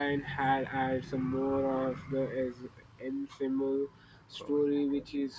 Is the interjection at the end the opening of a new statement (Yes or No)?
No